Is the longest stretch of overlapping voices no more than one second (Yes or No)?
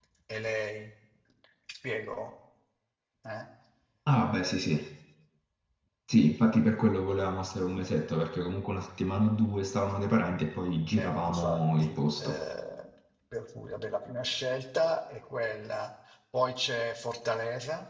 No